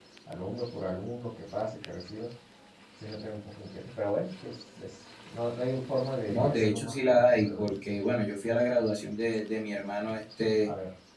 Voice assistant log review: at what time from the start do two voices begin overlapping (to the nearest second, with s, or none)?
6 s